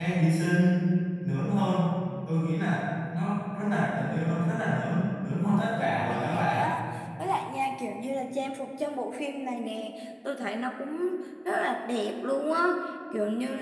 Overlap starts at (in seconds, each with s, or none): 5.3 s